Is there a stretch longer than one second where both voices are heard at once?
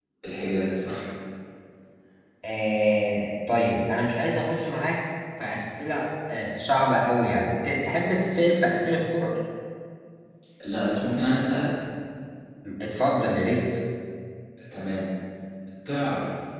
No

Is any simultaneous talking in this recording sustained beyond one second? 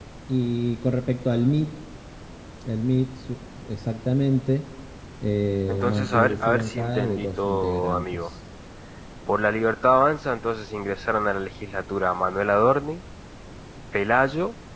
Yes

